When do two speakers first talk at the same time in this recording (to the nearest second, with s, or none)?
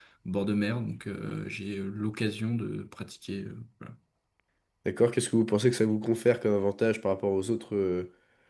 none